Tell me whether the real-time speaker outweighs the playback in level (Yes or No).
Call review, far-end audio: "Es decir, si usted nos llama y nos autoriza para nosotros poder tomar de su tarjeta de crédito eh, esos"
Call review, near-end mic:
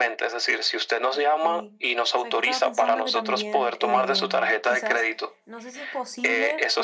No